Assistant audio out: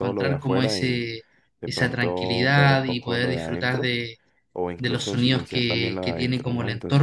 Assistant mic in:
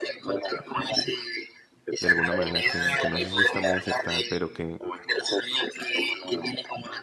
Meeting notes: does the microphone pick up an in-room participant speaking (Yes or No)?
Yes